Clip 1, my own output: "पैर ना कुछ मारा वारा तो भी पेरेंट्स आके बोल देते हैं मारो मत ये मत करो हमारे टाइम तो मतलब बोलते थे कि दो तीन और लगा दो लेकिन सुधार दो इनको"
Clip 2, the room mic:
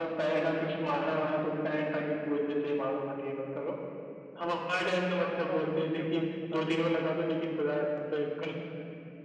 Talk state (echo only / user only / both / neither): both